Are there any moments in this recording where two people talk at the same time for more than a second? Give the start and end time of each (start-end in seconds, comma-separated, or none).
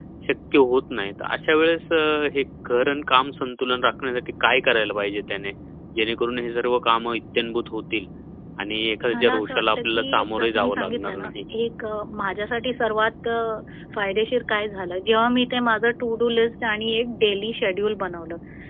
9.1-11.3